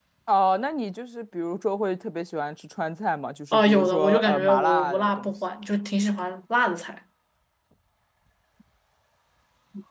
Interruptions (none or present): present